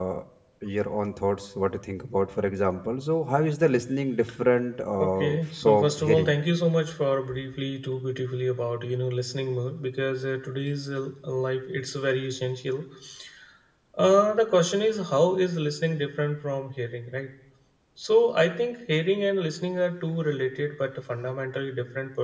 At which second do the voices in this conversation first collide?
5.0 s

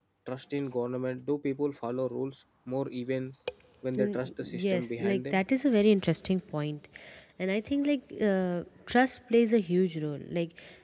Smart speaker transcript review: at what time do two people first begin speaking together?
4.0 s

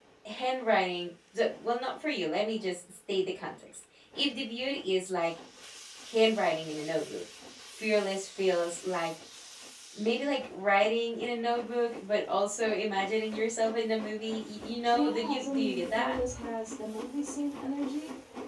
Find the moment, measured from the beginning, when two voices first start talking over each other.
14.8 s

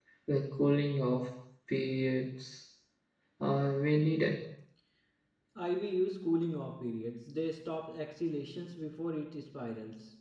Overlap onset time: none

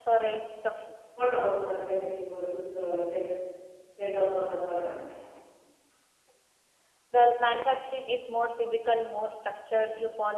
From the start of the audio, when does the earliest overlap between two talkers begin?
none

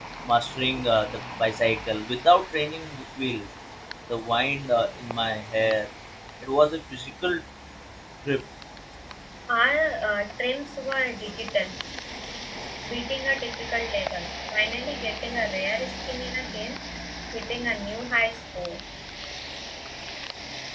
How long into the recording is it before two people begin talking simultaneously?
none

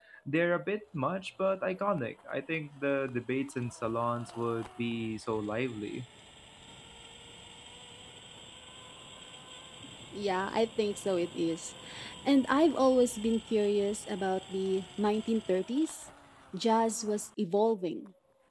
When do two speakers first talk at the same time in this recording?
none

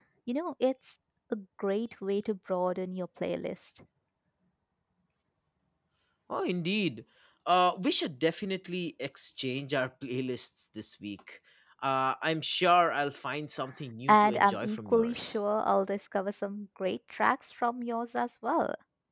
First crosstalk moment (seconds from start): 14.1 s

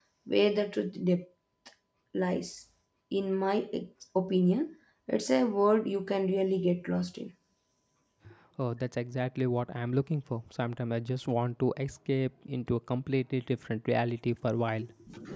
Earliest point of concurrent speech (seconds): none

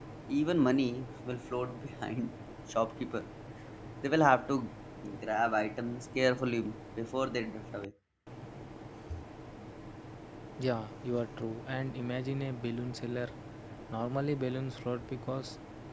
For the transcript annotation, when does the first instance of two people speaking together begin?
none

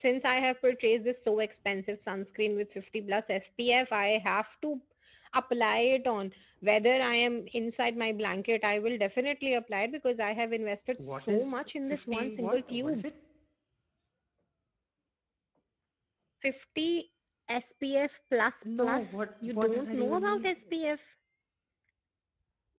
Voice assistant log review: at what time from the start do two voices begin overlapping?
11.0 s

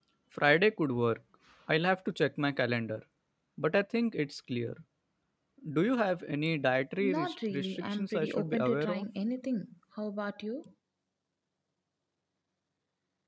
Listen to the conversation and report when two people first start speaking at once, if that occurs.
7.0 s

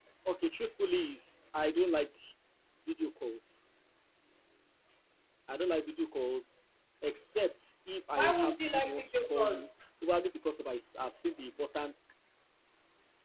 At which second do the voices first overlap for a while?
8.2 s

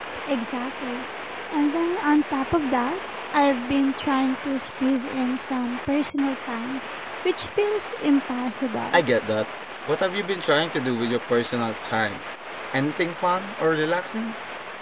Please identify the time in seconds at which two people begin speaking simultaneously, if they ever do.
none

